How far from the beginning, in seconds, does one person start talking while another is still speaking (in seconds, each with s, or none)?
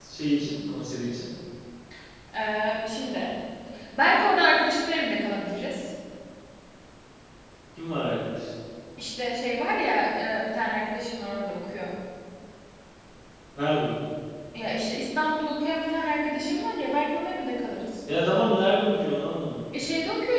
none